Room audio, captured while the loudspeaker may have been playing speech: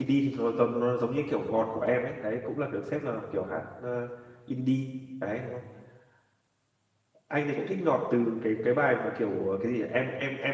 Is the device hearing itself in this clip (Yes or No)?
No